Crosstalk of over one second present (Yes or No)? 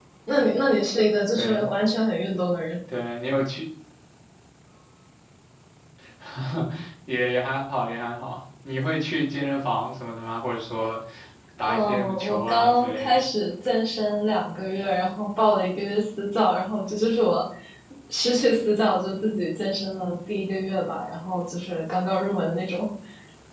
Yes